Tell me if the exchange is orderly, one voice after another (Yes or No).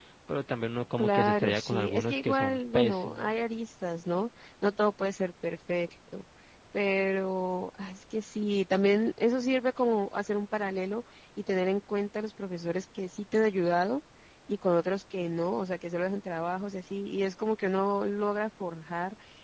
No